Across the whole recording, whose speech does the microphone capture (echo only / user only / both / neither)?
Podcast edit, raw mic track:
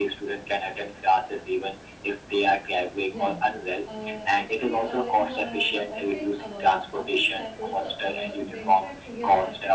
both